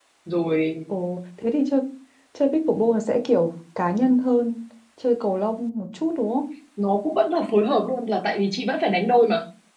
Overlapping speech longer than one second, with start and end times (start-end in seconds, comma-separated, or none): none